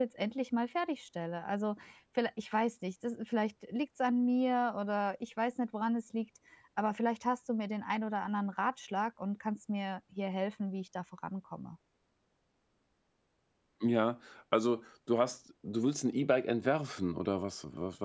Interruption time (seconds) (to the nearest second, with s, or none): none